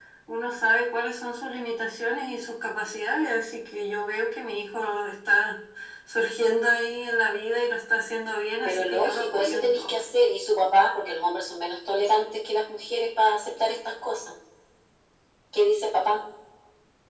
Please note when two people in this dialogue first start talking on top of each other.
8.6 s

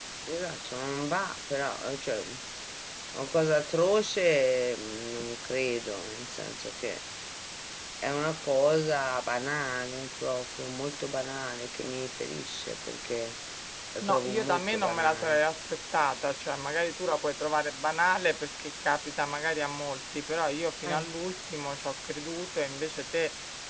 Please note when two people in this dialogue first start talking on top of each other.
14.0 s

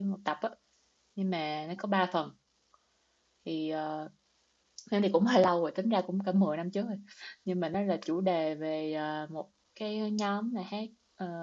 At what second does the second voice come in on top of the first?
none

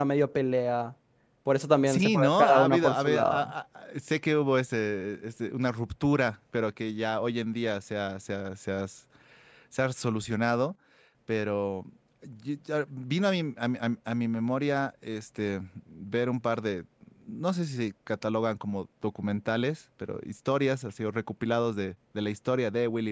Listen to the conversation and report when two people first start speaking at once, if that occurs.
1.9 s

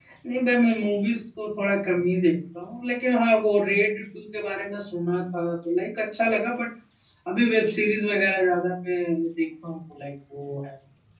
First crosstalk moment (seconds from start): none

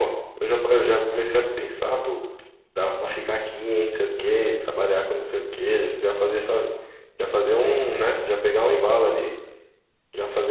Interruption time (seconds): none

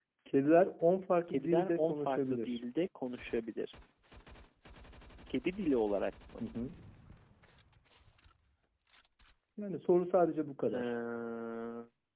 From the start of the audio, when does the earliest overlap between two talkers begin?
1.3 s

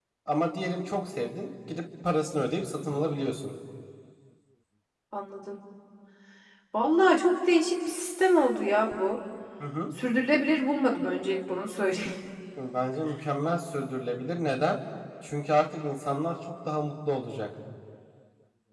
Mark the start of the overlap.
none

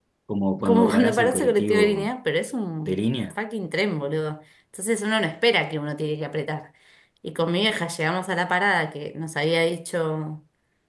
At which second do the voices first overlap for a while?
0.7 s

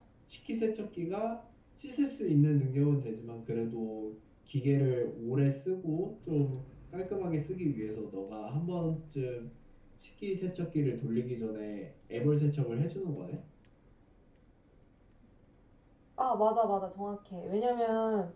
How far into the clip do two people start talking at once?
none

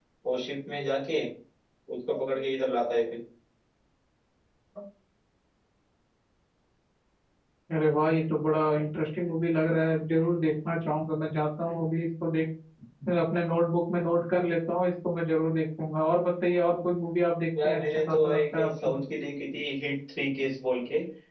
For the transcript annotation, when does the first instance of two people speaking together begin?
17.6 s

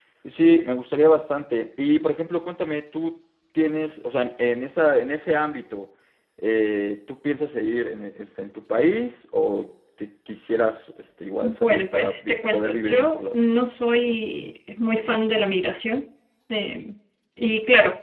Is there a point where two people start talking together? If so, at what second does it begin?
11.4 s

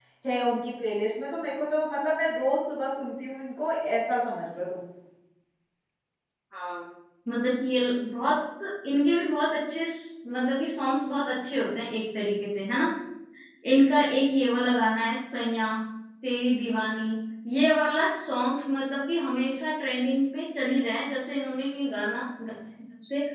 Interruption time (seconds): none

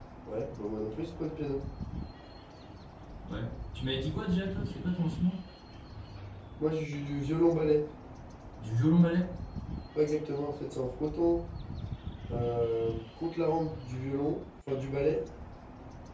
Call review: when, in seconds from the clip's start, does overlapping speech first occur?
none

